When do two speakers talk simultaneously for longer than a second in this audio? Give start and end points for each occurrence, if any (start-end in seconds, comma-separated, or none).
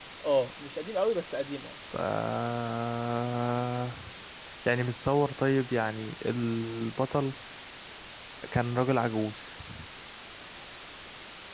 none